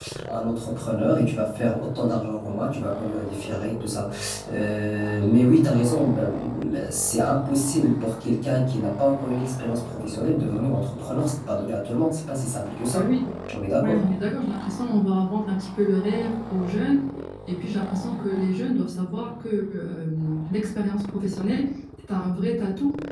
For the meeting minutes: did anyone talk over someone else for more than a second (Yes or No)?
No